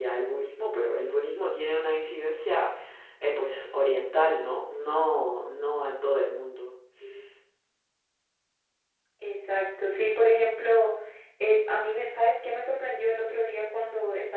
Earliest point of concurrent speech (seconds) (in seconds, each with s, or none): none